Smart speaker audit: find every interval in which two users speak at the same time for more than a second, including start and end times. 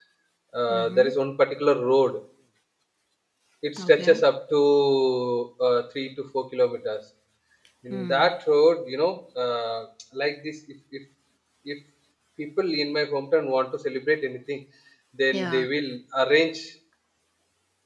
none

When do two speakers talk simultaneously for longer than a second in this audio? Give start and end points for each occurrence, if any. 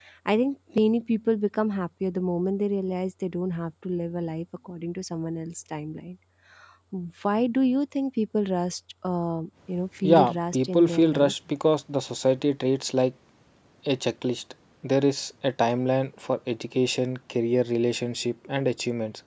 10.0-11.3

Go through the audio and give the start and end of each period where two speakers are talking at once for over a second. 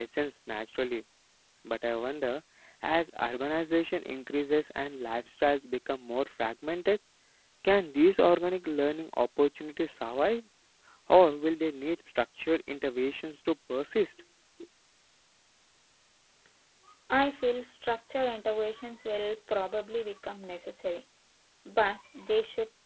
none

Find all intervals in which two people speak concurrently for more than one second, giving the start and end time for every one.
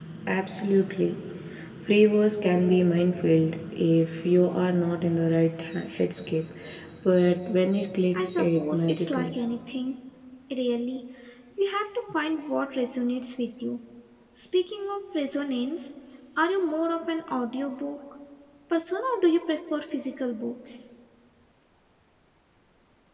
8.1-9.3

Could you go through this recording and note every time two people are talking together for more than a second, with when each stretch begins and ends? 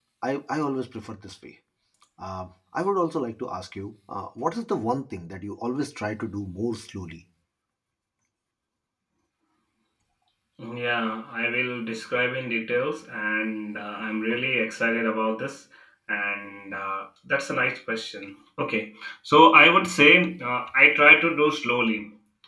none

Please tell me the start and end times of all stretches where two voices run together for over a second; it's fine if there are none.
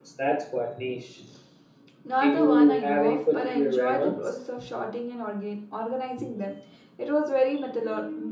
2.2-4.3

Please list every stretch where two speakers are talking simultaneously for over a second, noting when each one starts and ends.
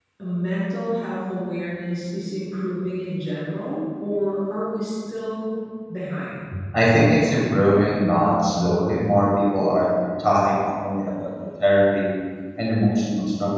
none

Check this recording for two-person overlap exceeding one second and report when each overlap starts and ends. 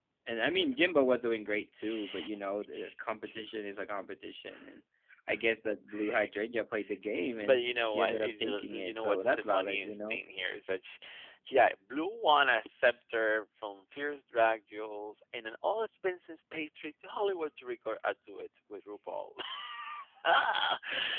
7.4-10.2

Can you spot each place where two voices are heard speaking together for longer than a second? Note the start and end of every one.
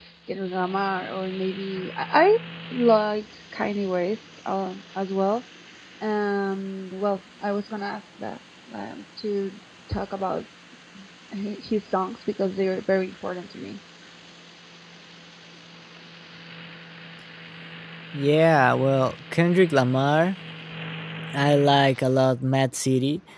none

